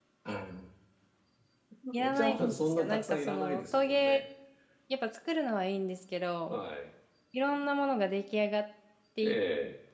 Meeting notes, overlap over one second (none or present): present